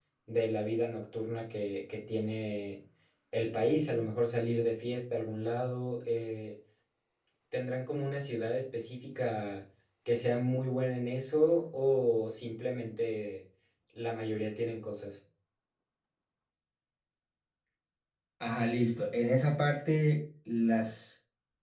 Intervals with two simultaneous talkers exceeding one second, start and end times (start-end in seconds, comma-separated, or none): none